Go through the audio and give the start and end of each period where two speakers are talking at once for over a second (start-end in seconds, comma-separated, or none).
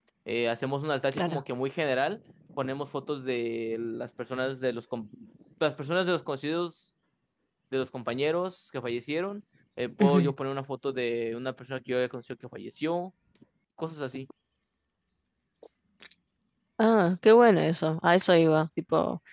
none